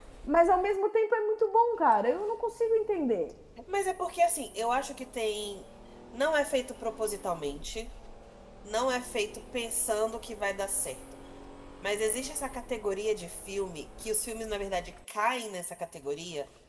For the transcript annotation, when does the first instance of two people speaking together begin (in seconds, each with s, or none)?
none